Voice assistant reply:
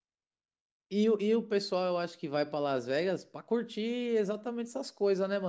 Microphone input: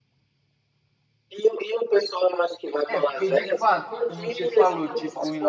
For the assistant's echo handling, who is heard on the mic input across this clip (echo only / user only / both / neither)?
both